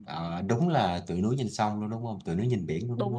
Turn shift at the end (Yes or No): Yes